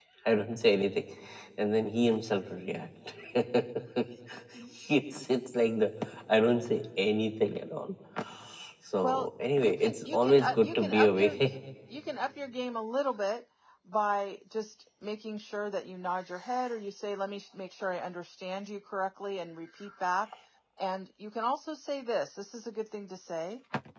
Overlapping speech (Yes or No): Yes